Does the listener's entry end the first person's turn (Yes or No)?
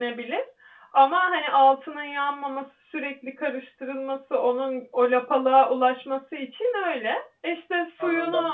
No